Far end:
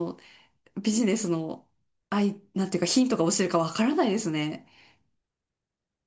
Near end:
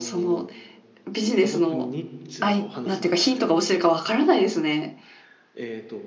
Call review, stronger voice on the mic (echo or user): echo